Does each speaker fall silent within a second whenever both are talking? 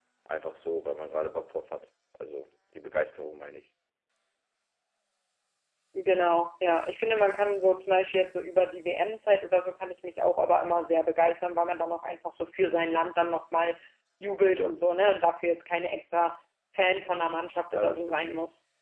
Yes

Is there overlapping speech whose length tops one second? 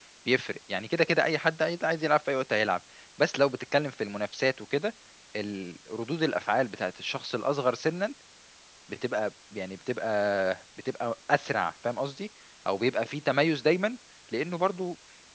No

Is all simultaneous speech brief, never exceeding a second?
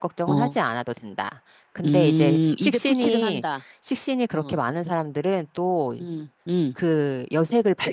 No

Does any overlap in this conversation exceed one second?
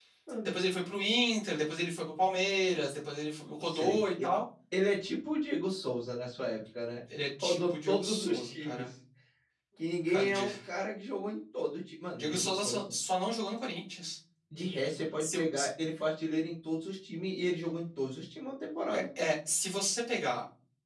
Yes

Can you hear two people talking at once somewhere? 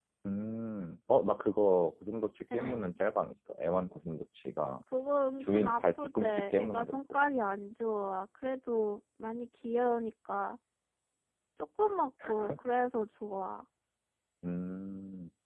Yes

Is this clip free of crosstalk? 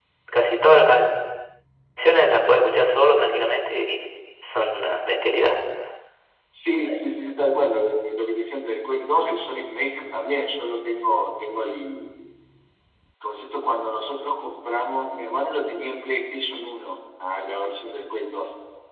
Yes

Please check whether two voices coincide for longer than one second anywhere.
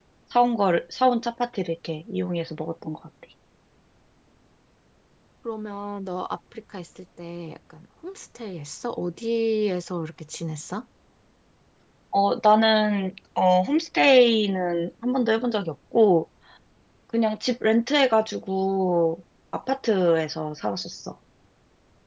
No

